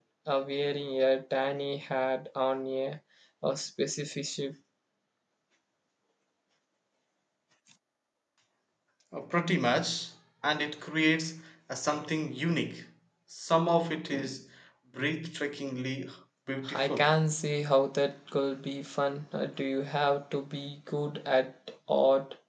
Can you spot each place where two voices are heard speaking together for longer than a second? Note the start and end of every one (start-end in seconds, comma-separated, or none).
none